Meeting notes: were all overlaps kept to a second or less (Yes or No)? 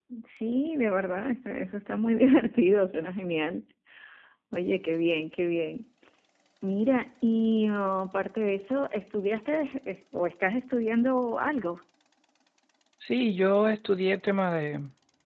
Yes